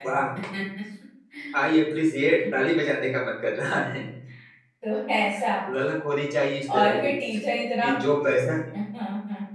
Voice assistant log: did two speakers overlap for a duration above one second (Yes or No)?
No